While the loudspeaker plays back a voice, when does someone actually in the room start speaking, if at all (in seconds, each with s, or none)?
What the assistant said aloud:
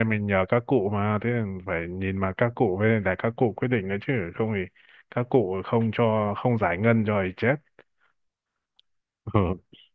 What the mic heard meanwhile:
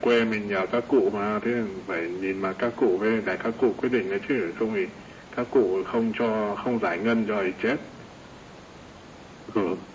none